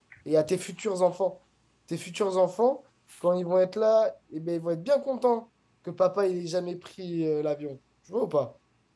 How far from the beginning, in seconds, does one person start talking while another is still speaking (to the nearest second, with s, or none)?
none